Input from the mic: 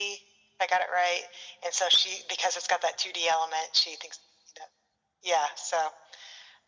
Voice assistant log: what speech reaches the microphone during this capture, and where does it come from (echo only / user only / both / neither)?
echo only